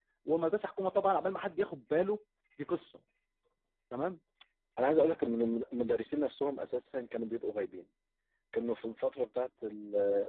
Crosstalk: none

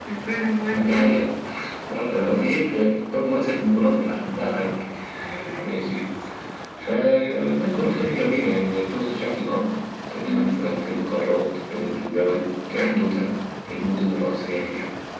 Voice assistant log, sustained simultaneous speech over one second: none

